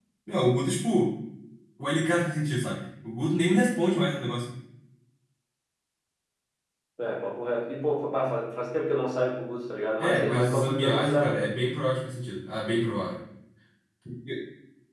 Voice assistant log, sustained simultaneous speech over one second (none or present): present